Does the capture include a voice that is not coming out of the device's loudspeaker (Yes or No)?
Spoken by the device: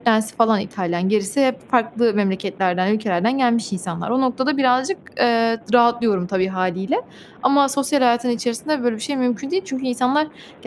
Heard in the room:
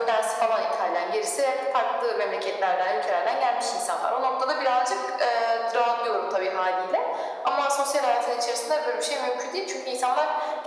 No